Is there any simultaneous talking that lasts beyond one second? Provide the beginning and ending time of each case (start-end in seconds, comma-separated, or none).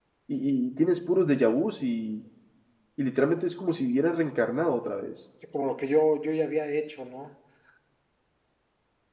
none